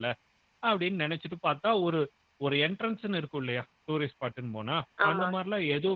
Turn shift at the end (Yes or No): No